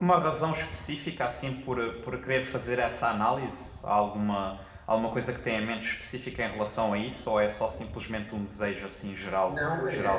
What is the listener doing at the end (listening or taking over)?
taking over